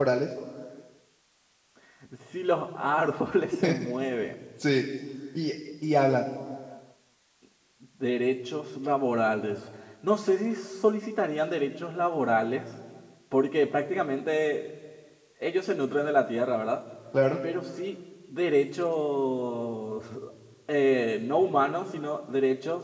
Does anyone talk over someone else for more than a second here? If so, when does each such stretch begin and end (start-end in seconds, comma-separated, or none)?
none